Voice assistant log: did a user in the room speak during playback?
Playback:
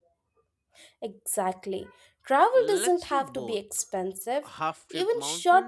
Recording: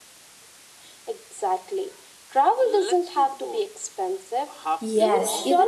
Yes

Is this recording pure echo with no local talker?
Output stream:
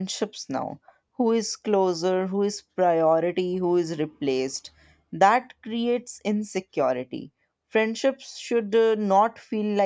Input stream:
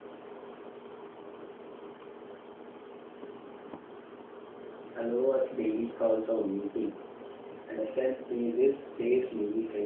No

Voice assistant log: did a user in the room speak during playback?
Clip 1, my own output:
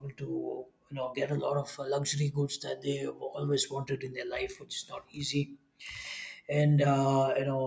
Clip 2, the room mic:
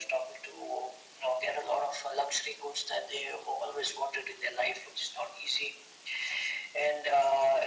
No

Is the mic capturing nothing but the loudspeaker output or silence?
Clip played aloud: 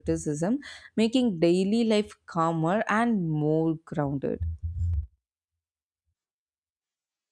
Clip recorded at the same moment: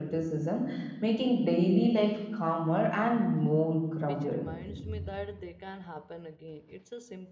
No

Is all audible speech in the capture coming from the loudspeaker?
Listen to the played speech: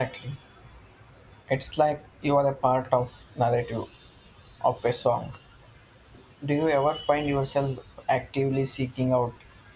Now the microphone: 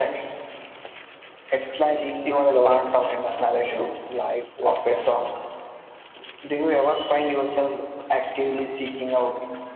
No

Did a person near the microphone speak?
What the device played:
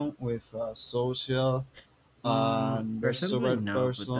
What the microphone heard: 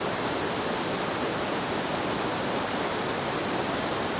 No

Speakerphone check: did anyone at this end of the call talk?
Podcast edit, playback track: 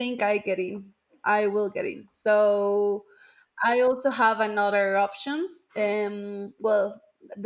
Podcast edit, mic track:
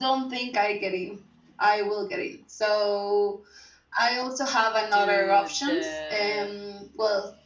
Yes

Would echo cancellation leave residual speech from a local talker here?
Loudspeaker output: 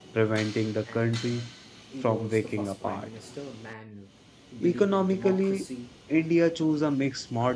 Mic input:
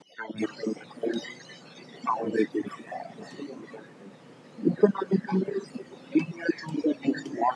No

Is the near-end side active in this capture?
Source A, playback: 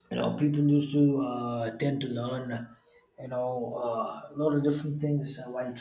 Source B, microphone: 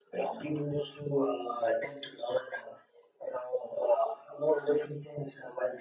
No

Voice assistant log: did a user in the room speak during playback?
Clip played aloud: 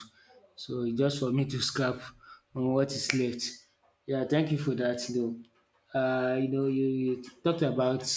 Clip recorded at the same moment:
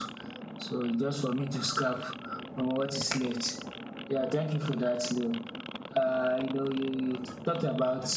No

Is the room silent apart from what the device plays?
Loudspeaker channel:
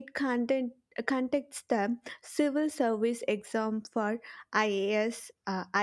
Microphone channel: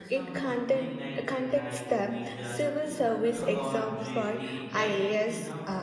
No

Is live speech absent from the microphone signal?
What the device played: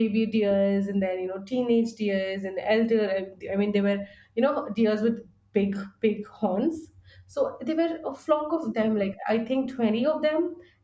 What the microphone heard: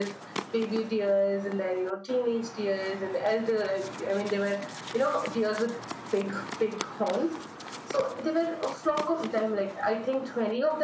Yes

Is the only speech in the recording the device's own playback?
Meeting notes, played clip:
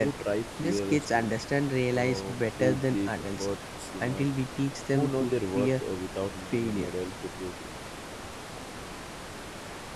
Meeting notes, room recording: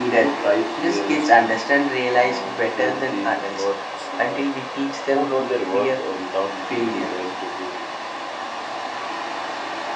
Yes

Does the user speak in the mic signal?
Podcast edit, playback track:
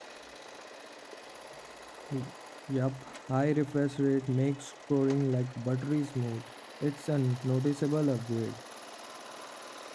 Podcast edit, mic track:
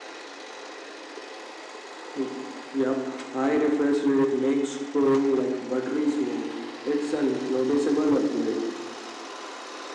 No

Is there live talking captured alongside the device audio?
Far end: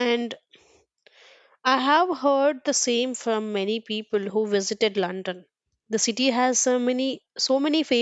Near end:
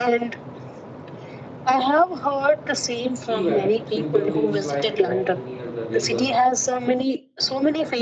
Yes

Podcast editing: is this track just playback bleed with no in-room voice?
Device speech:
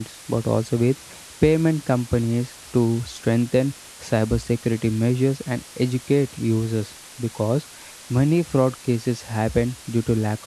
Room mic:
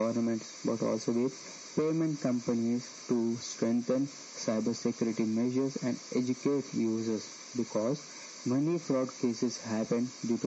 Yes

